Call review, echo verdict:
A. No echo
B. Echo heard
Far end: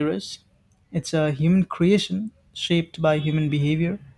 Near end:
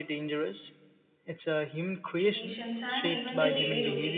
B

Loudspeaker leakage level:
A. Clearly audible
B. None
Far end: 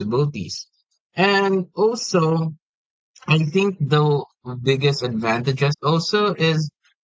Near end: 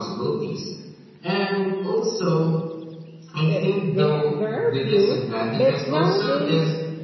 A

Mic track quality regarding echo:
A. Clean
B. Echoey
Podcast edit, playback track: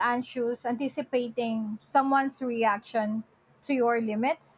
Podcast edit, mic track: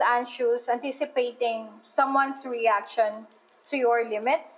B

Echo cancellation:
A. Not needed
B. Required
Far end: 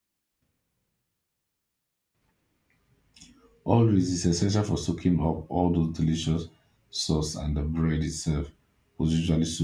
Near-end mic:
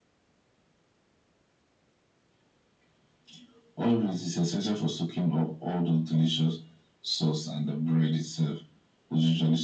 B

